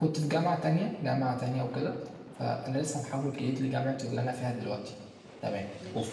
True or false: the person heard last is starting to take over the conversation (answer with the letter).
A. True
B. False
B